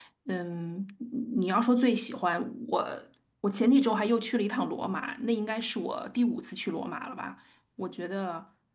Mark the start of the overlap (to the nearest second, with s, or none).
none